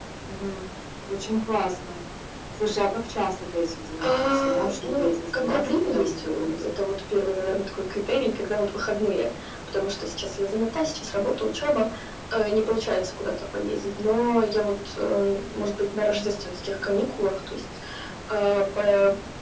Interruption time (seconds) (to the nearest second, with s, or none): 4 s